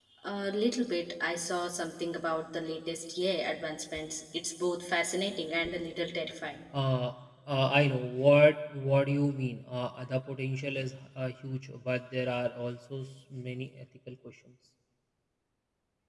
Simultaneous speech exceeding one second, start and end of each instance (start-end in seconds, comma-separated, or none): none